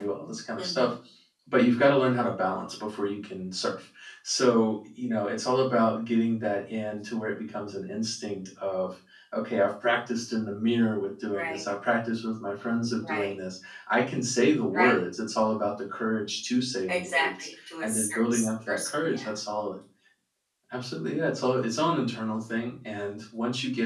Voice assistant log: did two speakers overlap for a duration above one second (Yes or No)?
Yes